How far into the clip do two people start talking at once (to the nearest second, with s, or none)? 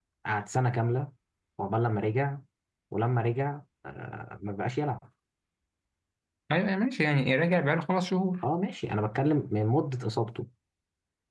none